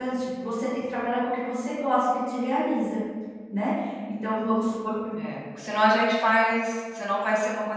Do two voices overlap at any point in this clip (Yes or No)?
No